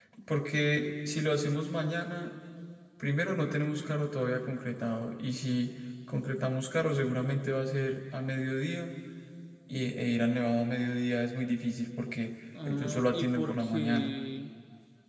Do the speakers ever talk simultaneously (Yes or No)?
Yes